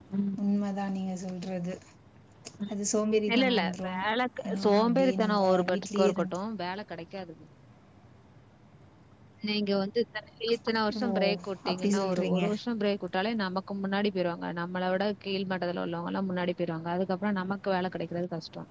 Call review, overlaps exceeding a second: present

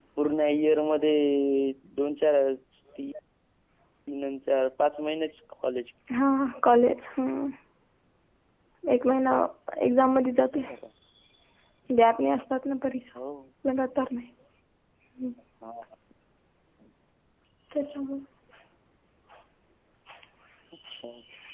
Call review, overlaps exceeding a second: none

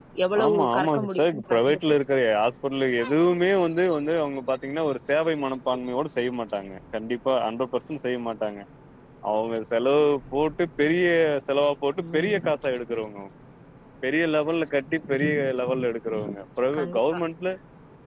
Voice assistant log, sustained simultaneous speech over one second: present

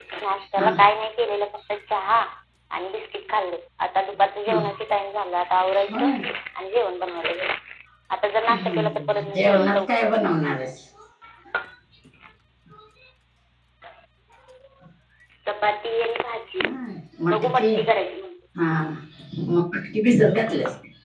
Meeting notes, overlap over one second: present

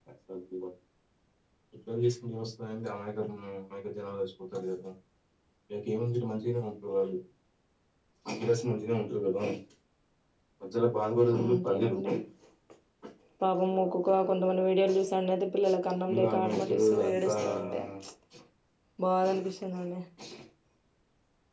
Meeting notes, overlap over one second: present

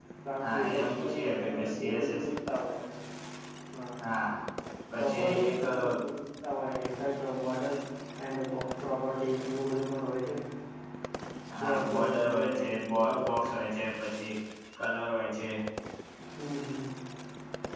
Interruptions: present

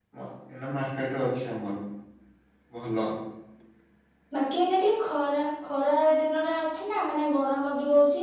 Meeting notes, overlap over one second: none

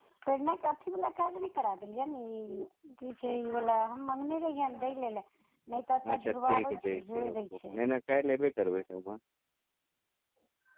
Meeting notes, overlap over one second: present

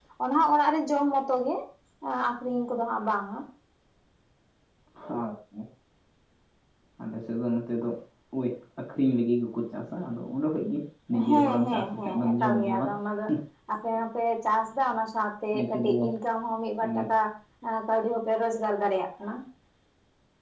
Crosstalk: present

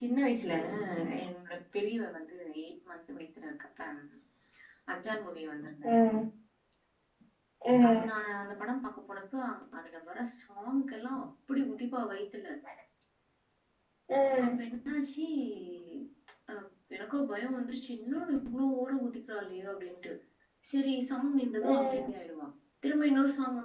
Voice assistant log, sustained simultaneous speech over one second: none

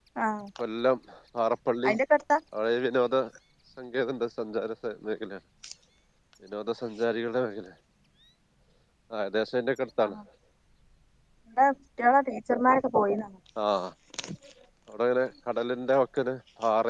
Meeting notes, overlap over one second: none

